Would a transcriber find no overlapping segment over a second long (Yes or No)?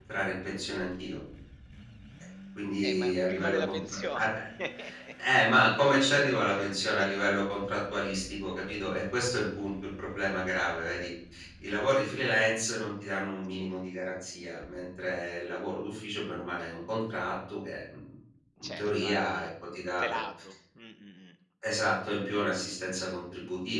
No